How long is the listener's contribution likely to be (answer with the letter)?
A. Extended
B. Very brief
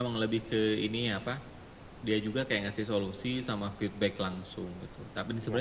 B